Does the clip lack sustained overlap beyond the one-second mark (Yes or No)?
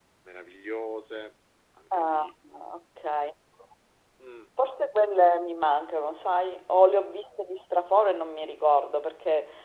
Yes